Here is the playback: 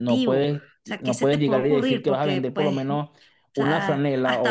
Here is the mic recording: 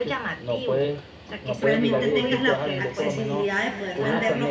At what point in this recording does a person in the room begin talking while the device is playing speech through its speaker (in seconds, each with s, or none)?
1.6 s